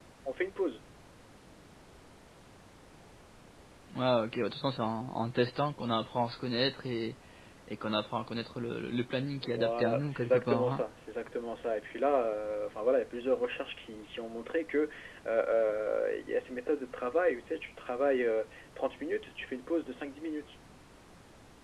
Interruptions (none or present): present